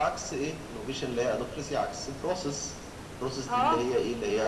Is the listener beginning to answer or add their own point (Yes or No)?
Yes